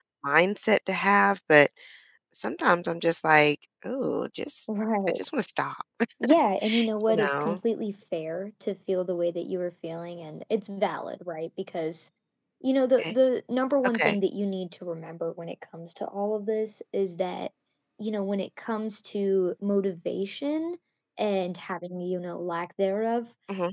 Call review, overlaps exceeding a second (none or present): none